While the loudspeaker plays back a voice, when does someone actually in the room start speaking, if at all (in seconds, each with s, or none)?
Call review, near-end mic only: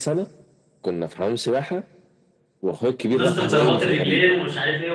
3.1 s